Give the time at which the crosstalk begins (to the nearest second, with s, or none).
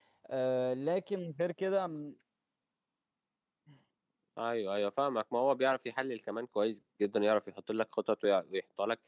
none